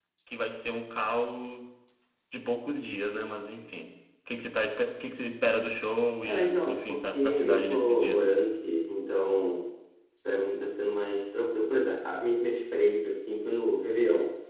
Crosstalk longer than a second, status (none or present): present